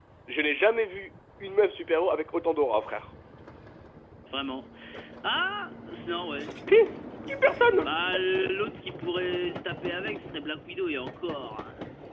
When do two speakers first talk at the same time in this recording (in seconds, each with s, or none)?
none